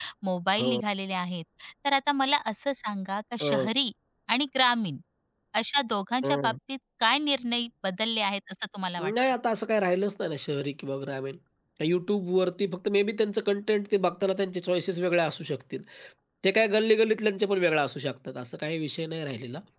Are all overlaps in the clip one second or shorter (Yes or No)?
Yes